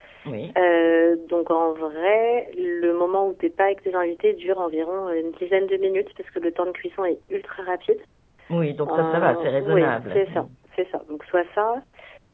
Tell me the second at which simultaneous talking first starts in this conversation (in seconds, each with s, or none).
8.9 s